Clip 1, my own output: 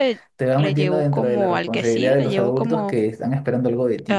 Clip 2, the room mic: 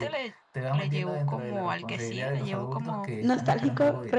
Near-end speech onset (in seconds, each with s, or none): 3.2 s